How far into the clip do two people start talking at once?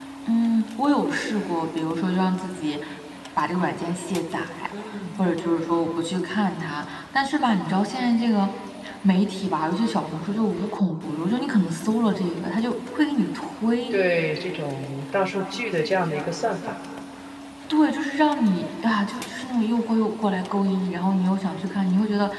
none

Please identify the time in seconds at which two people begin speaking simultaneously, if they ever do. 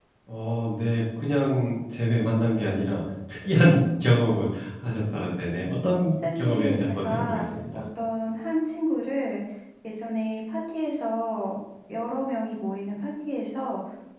6.2 s

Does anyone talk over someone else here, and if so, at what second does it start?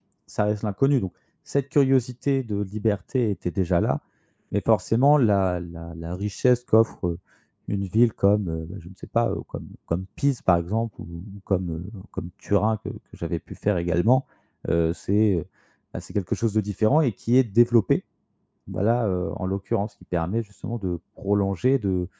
none

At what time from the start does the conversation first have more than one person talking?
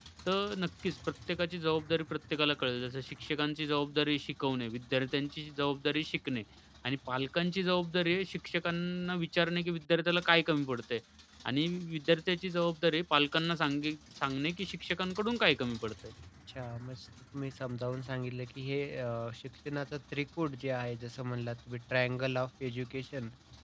none

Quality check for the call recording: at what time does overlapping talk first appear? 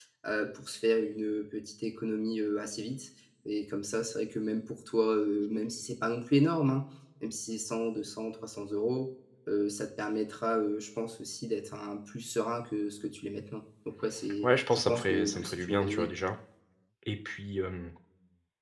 14.4 s

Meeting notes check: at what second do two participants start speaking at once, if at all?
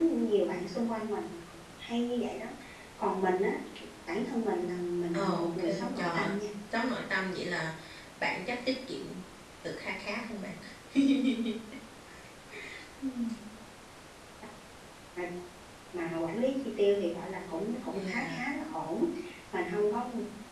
5.1 s

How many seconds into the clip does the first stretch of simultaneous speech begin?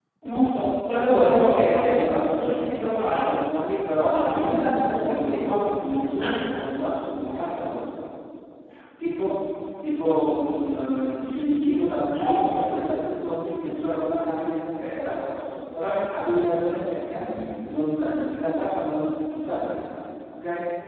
0.9 s

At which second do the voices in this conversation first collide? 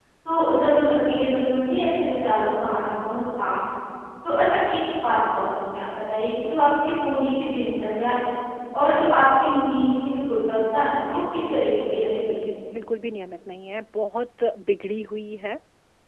11.0 s

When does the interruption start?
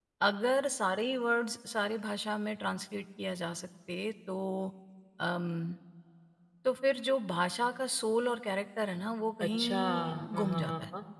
9.4 s

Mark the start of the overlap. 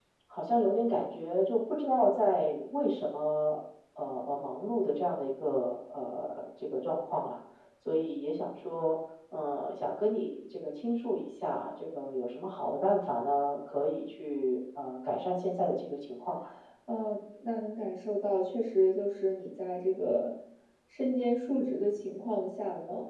none

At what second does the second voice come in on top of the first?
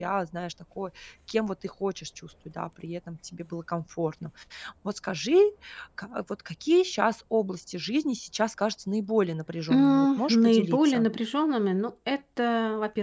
9.7 s

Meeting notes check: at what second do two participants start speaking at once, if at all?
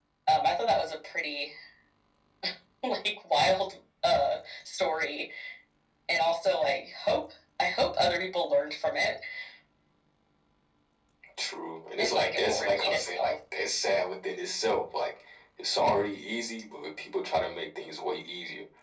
12.0 s

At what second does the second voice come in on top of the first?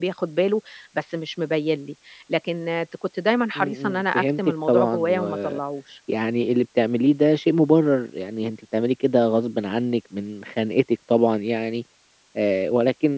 3.5 s

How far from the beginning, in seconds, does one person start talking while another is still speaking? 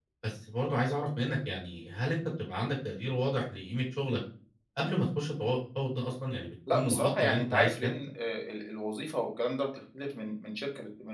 6.7 s

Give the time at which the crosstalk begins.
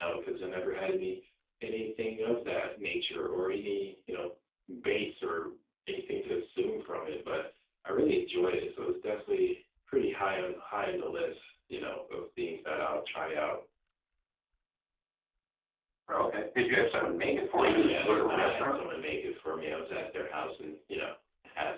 17.6 s

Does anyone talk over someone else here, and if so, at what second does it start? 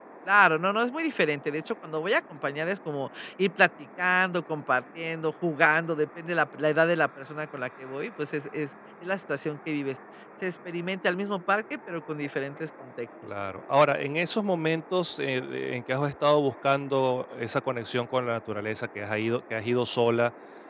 none

